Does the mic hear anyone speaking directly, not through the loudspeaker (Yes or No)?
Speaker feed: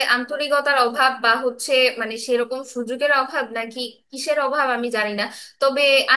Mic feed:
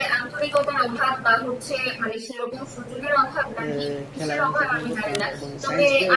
Yes